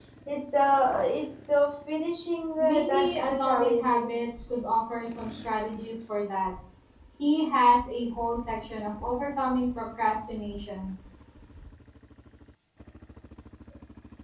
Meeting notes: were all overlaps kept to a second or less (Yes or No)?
No